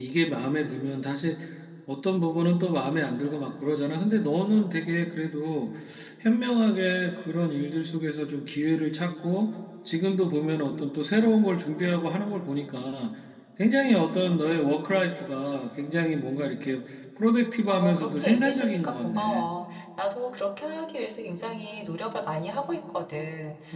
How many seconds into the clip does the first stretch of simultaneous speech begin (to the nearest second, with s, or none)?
18 s